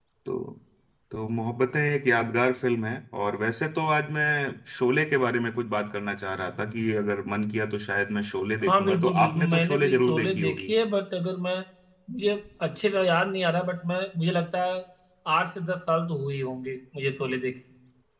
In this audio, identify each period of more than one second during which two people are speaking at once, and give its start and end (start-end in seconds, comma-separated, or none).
8.6-10.7